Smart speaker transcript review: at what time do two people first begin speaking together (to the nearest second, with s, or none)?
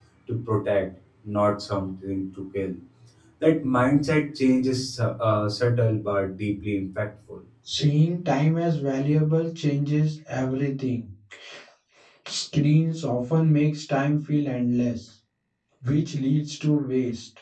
none